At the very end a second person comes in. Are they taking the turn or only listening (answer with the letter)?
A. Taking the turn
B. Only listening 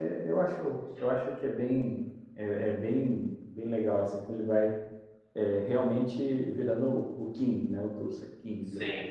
A